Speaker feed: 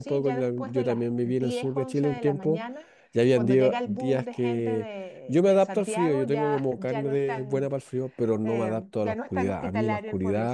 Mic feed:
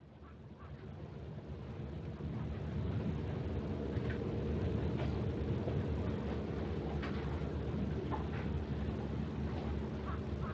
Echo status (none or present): none